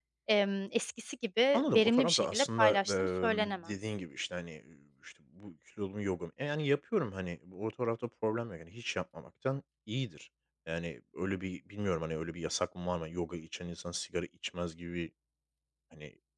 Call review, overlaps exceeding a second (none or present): present